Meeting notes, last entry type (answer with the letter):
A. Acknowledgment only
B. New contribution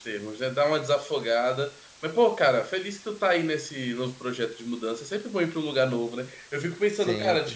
A